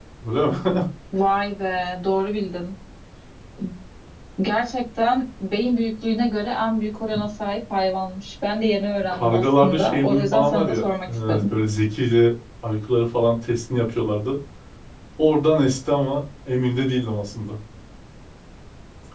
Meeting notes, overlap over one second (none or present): present